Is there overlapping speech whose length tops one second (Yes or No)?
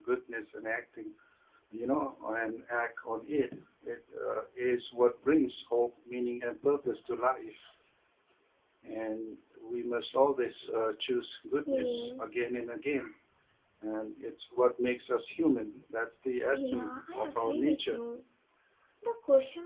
Yes